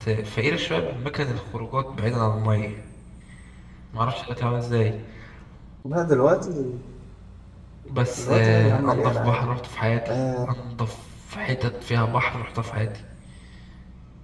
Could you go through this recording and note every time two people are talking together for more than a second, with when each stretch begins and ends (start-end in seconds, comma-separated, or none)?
8.2-9.5